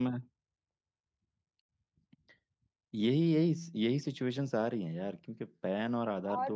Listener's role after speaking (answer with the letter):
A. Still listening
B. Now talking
B